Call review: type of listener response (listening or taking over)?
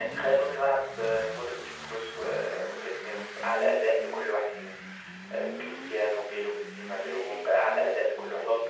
taking over